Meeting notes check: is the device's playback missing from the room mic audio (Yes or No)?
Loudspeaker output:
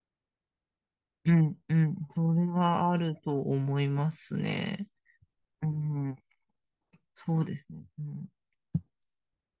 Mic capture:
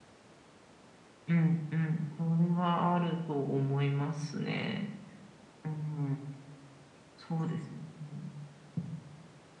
No